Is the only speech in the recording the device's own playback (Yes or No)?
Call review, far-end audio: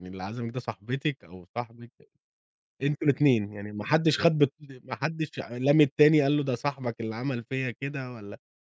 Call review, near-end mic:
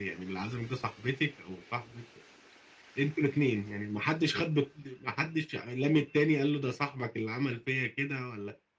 Yes